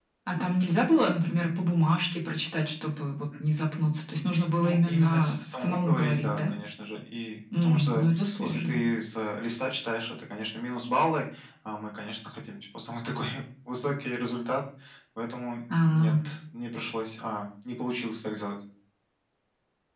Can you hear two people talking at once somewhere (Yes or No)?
Yes